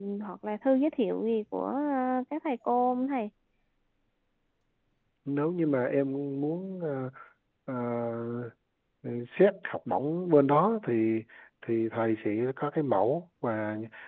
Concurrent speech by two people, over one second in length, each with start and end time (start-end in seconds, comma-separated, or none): none